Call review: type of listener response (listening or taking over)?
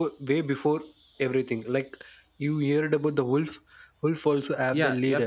taking over